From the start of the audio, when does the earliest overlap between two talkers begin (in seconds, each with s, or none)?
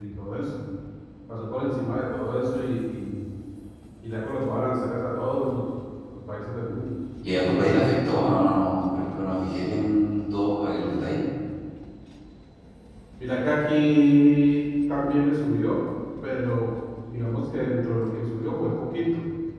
none